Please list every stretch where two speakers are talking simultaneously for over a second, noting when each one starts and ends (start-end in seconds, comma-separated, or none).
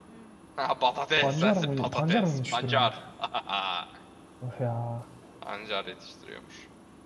1.2-2.9